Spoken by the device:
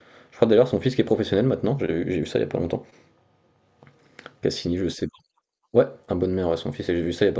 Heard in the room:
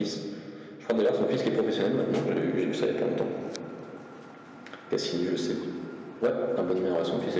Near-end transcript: none

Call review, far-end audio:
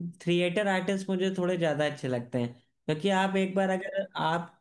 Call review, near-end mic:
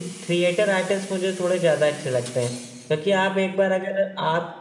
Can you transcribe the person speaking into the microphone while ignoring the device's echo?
none

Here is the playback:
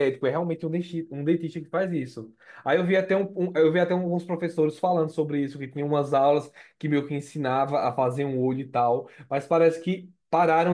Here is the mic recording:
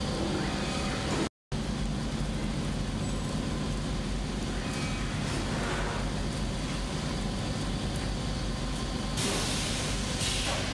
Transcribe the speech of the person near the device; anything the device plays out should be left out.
none

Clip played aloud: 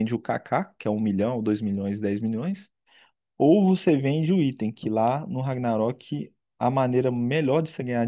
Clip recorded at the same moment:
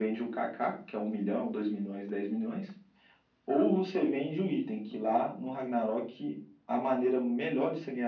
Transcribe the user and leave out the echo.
none

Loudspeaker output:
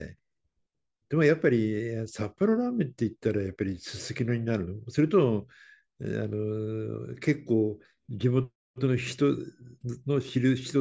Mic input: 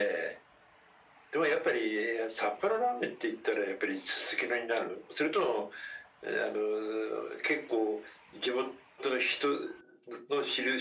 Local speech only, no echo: none

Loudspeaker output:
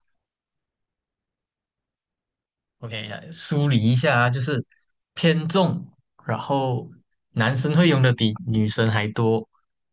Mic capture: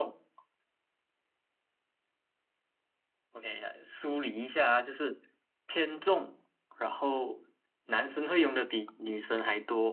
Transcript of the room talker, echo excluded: none

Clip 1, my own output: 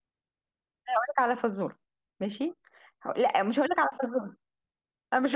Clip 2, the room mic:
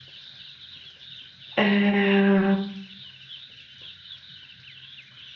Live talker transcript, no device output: آه

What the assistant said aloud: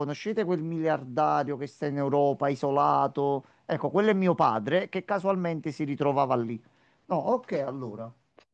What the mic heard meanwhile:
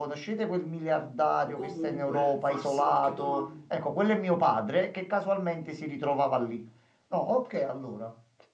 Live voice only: o comunque farsi qualche domanda.

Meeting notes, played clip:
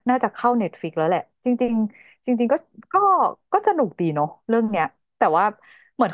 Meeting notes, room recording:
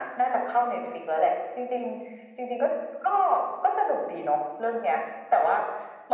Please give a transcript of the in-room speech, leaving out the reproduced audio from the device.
none

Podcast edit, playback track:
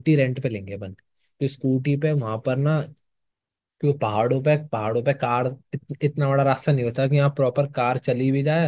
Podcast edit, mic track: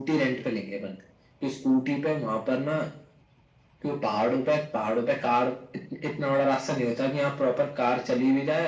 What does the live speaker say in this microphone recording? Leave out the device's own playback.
none

